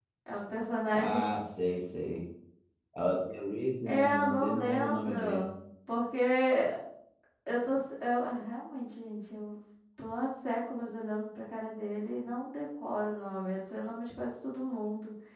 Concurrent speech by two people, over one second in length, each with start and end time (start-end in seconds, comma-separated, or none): 3.9-5.5